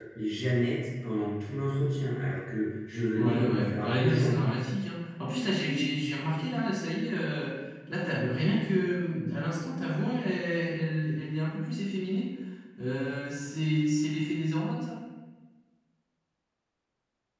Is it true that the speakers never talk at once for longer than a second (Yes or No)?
No